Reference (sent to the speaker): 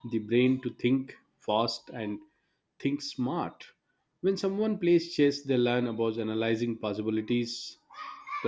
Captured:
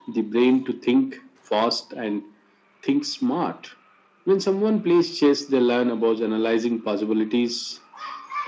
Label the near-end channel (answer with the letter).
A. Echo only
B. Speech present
A